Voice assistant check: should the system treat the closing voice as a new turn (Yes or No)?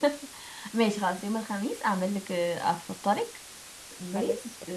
No